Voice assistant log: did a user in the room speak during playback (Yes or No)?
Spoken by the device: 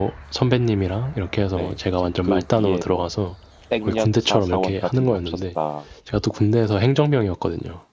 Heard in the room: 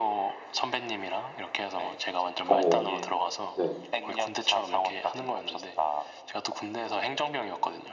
Yes